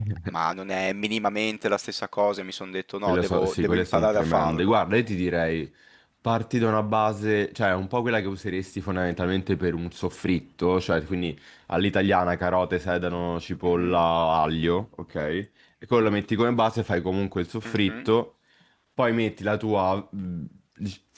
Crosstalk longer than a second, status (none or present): present